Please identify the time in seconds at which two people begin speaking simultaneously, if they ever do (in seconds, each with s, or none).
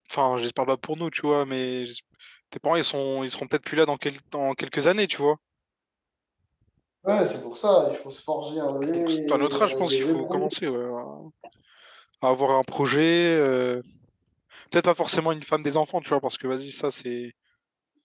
8.8 s